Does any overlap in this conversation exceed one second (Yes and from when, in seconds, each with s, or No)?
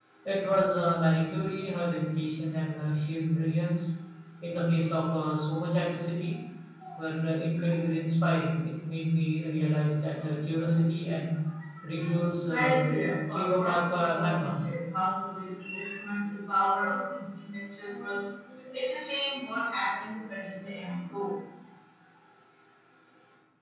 Yes, from 12.5 s